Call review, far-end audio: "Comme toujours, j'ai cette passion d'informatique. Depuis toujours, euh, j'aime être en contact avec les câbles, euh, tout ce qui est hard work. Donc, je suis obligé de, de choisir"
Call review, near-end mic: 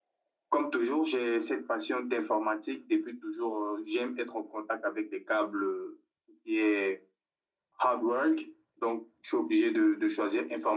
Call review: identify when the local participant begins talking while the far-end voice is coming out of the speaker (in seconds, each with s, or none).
none